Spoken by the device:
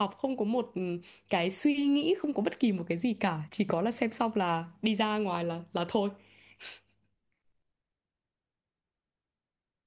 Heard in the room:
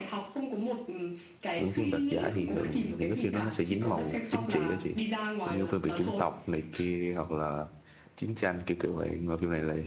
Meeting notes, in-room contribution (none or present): present